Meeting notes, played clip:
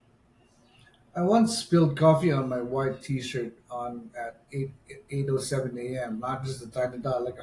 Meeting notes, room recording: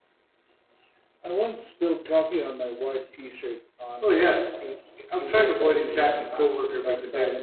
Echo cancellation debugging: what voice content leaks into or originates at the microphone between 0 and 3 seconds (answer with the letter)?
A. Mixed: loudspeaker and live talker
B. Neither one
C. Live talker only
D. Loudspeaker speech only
D